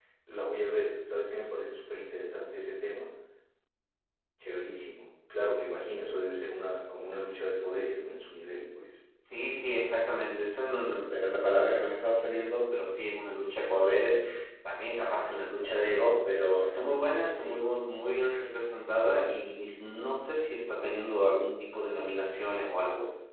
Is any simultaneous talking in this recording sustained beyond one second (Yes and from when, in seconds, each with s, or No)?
No